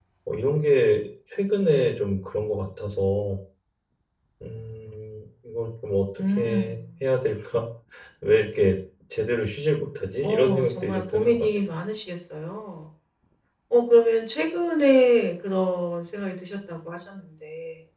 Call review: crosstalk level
present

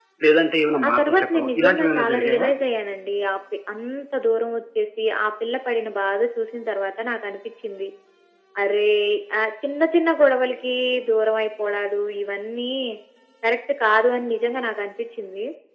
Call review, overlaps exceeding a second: present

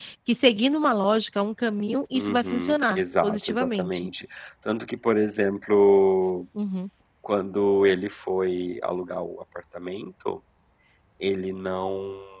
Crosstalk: present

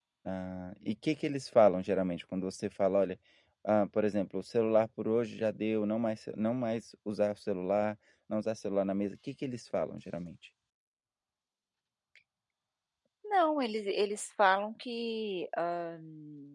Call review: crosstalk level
none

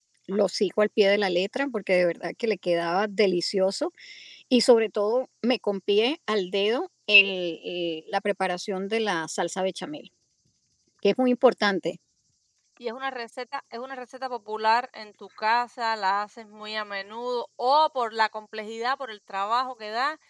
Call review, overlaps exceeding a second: none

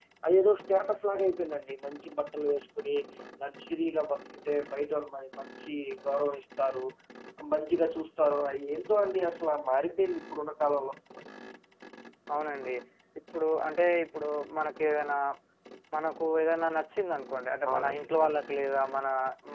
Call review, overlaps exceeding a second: none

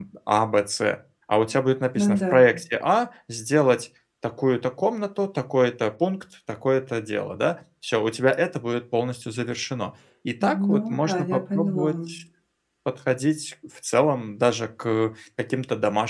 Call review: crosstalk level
present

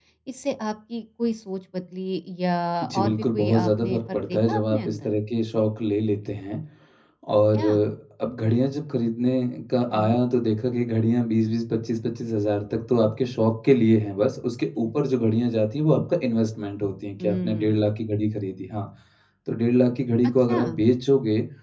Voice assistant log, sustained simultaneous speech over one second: present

